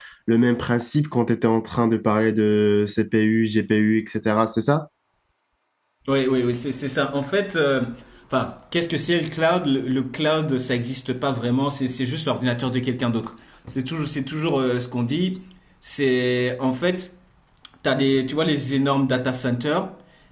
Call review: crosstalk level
none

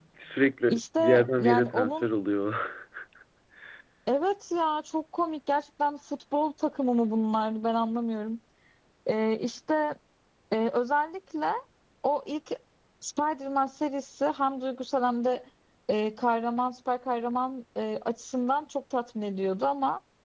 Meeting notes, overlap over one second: present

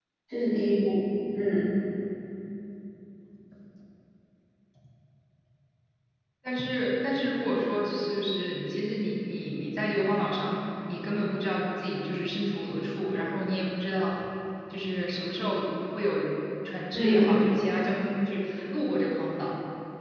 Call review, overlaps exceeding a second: none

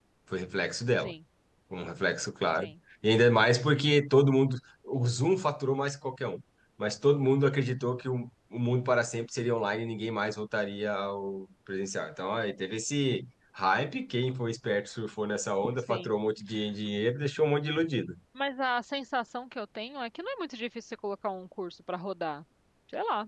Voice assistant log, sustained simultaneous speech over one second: none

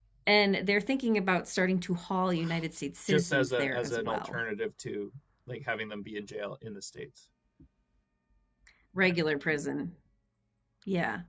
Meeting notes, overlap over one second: present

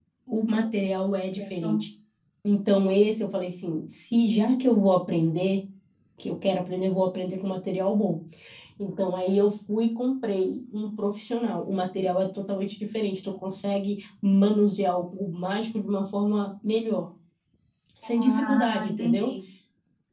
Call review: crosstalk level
present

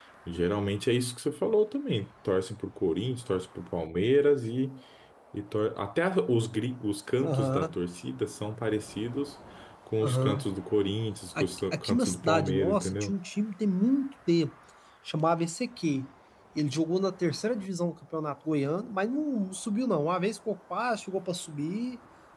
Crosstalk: present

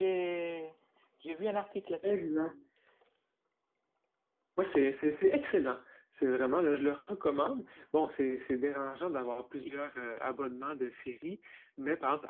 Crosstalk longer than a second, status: none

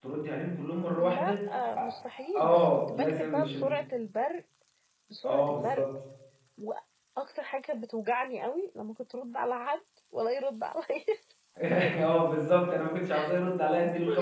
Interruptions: present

